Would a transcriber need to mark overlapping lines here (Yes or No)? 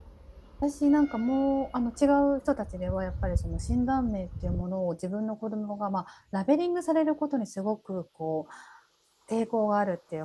No